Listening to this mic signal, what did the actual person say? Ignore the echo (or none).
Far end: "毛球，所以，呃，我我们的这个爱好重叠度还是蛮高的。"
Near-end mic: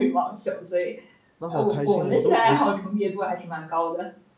那好开心，我都我现在